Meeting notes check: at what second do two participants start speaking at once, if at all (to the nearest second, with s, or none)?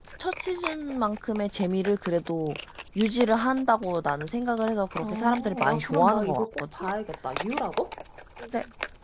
5 s